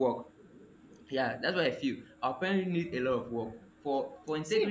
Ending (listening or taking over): taking over